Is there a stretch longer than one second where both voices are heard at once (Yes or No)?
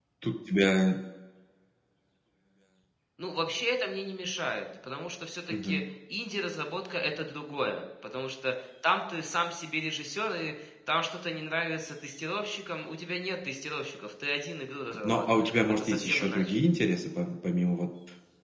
Yes